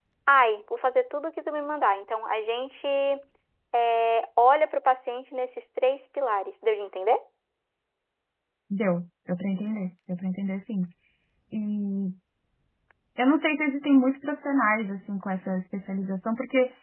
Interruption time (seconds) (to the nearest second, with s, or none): none